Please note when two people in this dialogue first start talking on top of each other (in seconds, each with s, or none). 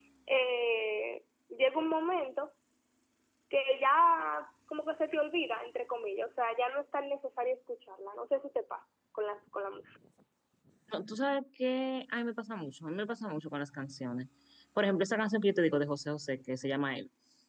none